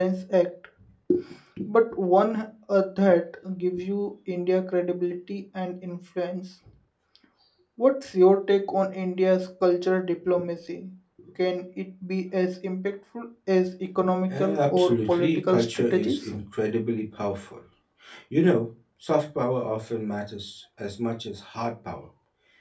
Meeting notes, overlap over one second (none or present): present